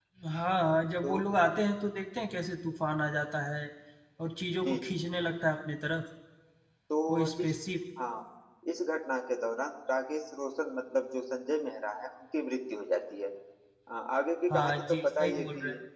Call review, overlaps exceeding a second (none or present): present